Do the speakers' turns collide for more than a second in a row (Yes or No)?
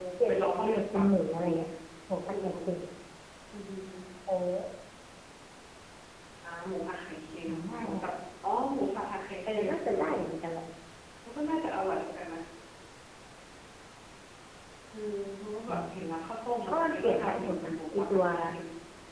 Yes